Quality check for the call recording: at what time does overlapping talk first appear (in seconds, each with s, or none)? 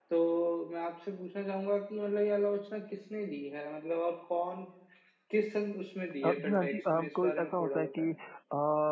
6.2 s